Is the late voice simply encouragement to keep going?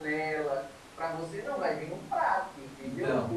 Yes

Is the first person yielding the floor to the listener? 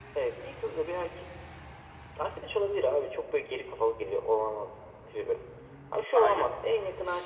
No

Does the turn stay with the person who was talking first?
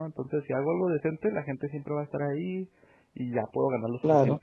Yes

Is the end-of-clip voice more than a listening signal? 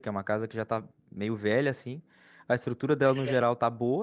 No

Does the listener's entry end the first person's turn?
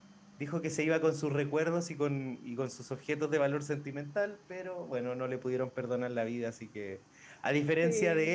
No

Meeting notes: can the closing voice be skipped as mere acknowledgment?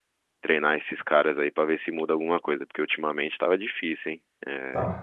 Yes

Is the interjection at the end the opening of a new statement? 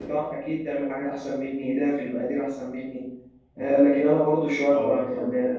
No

